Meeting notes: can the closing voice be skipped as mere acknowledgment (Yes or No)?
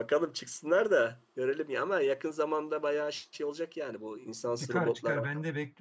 No